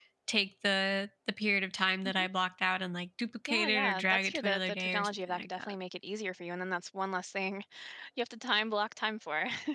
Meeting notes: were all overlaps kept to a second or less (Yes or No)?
No